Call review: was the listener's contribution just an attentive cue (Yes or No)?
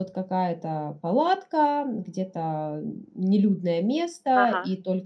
Yes